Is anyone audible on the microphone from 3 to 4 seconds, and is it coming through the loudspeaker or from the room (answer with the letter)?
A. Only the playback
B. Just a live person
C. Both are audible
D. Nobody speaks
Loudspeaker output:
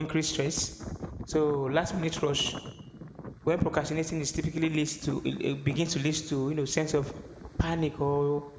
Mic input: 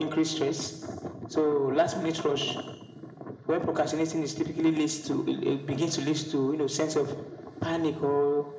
A